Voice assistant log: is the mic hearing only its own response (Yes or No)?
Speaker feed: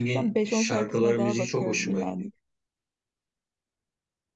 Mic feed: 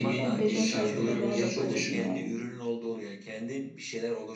No